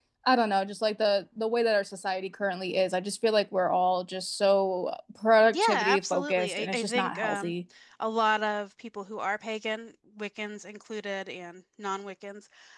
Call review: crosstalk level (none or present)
present